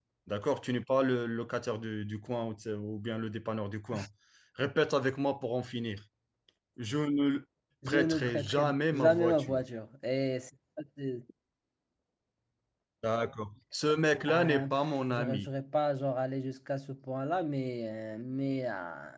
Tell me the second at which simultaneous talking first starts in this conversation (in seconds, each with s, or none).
7.9 s